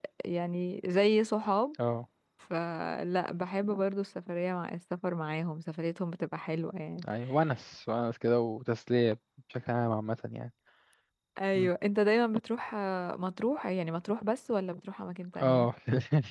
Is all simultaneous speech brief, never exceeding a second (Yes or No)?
Yes